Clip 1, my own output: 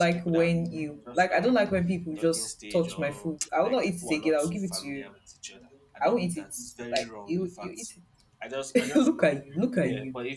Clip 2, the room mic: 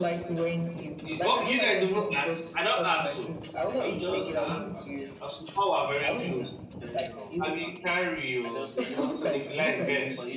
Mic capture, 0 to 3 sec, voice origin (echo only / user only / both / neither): both